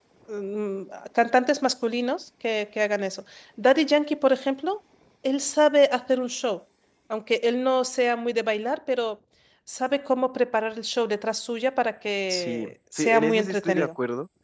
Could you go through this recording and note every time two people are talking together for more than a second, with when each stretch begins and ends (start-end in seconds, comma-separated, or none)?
12.3-13.9